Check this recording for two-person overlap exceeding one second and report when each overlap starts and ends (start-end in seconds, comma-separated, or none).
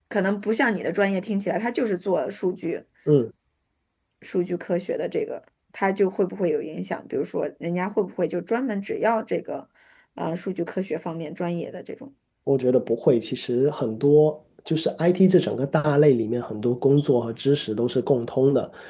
none